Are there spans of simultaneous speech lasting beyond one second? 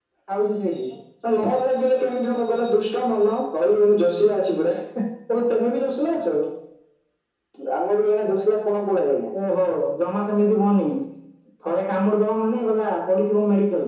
No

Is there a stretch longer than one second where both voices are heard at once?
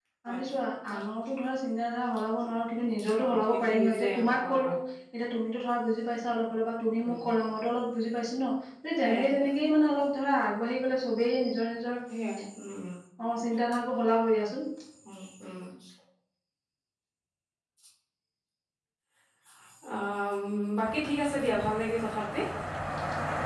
Yes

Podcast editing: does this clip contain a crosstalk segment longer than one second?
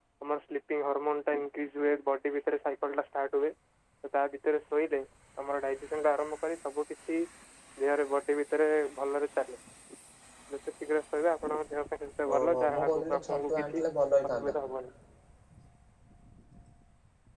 Yes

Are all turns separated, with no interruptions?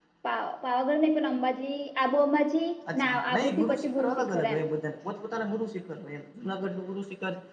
No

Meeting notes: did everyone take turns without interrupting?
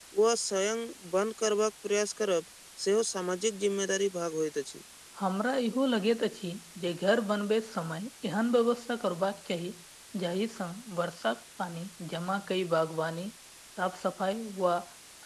Yes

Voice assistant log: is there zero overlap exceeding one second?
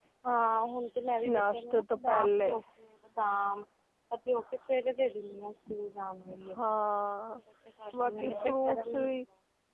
No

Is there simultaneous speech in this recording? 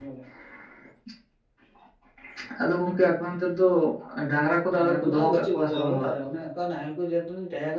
Yes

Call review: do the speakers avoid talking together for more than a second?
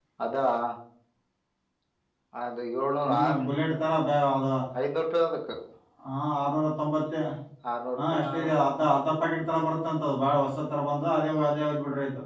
Yes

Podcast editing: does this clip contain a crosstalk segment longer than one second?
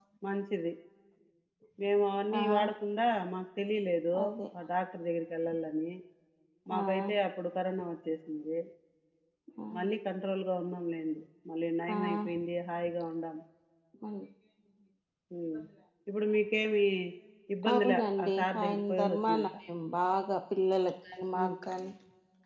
Yes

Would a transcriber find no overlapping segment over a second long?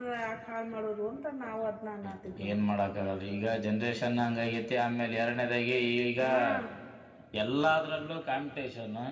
Yes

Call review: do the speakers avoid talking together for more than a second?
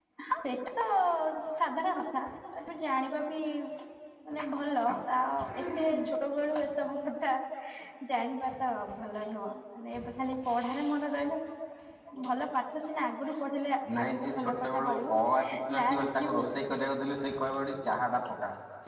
No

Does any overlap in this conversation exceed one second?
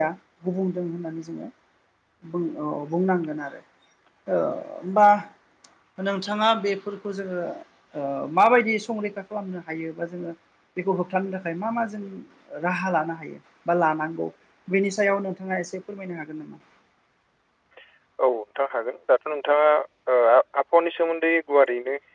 No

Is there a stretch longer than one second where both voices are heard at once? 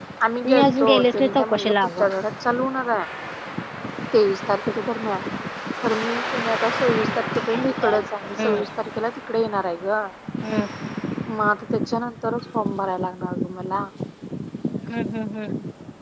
Yes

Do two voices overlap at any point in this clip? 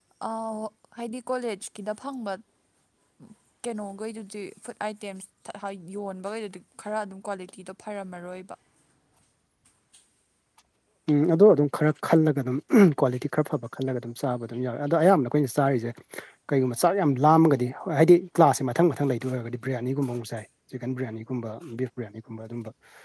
No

